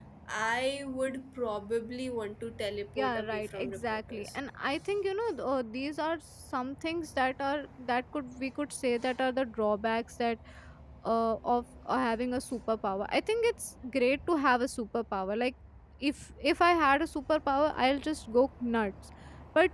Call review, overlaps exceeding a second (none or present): present